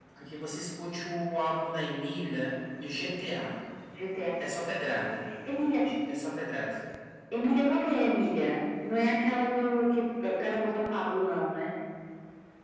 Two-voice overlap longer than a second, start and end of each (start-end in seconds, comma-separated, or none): none